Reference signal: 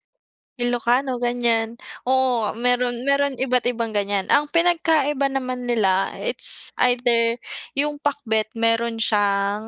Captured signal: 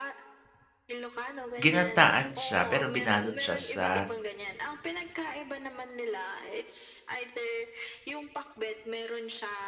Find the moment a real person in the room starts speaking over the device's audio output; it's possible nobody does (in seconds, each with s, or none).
1.6 s